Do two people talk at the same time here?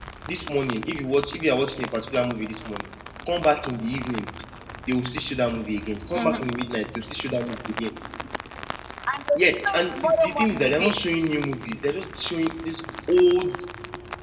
Yes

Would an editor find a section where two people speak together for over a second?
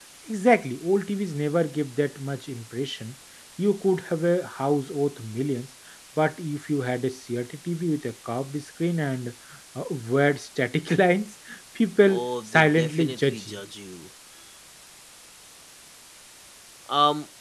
Yes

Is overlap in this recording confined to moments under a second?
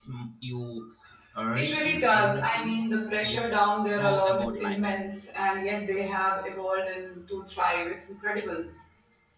No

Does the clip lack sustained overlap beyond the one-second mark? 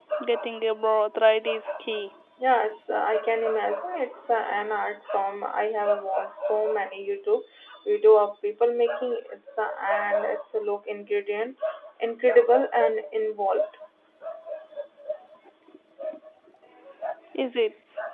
Yes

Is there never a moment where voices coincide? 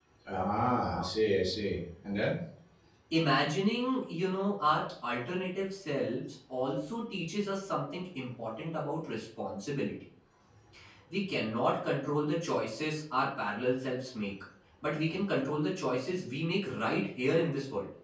Yes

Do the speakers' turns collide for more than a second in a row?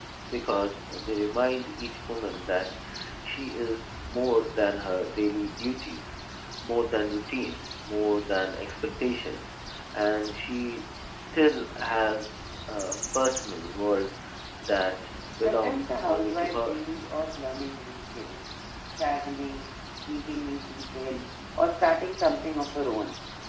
Yes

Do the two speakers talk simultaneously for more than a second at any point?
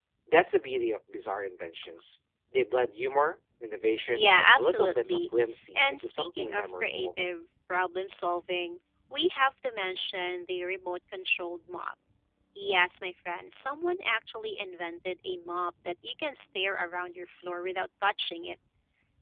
Yes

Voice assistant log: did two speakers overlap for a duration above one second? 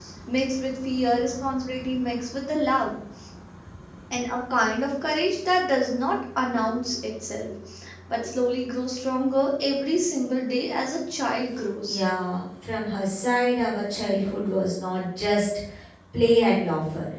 No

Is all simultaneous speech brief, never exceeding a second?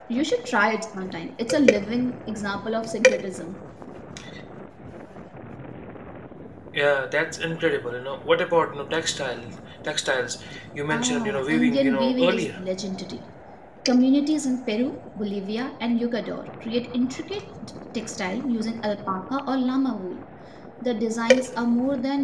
No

